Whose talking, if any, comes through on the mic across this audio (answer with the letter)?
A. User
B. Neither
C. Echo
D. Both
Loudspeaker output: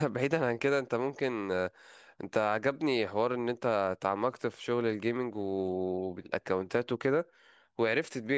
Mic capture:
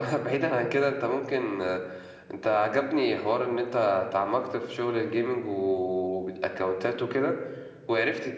C